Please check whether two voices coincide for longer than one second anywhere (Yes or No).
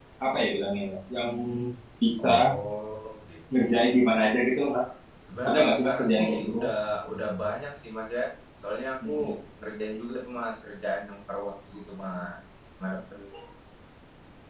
Yes